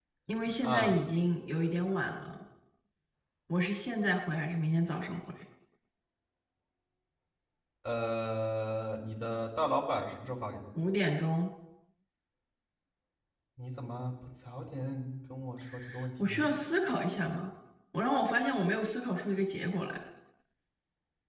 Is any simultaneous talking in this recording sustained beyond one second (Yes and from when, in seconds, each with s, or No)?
No